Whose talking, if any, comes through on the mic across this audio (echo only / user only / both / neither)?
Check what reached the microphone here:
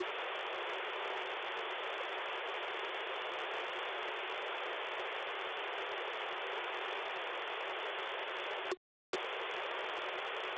neither